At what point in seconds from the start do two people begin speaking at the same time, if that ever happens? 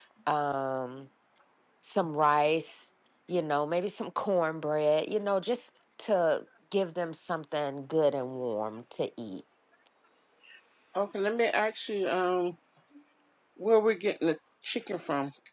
none

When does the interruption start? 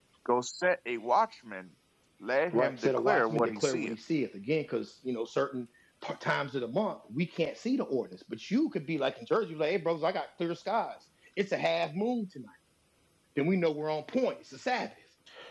2.5 s

